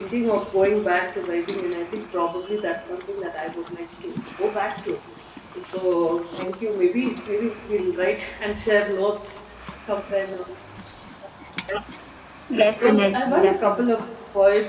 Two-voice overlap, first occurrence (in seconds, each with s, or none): 12.7 s